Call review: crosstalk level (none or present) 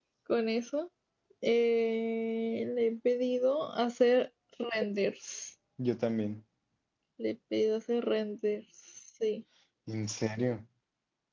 none